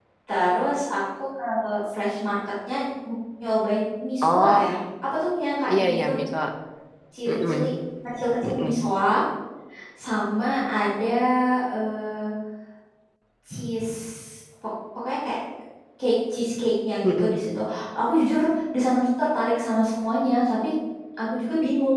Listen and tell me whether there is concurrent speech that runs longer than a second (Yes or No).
No